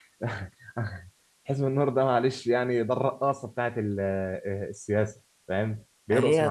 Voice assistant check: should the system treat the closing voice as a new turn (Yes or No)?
Yes